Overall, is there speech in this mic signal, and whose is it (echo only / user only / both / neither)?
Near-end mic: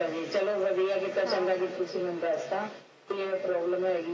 both